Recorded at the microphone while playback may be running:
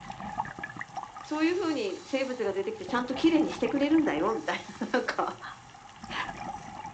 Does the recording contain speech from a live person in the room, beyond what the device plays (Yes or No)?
No